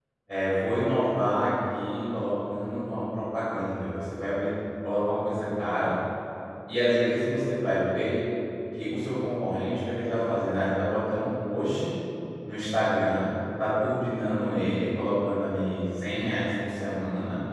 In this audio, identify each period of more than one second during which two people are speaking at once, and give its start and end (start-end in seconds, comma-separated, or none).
none